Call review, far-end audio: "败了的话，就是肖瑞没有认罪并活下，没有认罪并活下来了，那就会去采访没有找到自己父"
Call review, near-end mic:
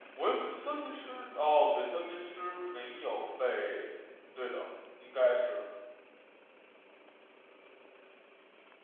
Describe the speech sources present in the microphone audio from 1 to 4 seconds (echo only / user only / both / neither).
user only